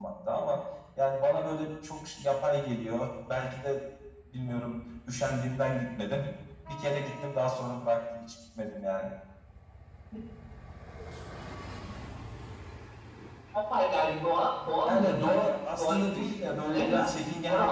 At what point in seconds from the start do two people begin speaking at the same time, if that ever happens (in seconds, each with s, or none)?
14.9 s